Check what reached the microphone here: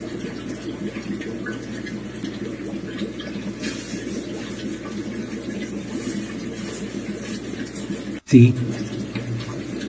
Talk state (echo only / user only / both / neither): user only